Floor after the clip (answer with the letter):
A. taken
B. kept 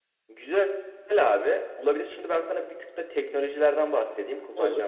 B